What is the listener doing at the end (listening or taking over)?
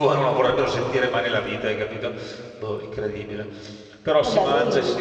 listening